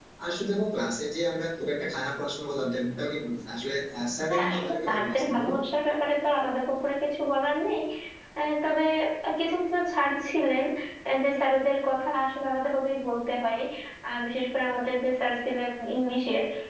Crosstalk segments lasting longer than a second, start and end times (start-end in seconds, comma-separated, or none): 4.3-5.5